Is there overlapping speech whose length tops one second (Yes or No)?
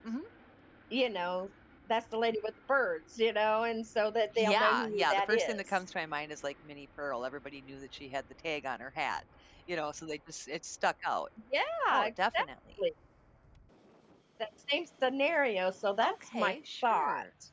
Yes